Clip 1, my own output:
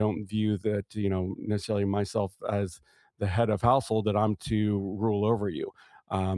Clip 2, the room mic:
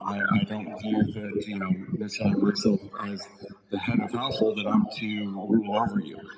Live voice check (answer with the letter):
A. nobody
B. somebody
A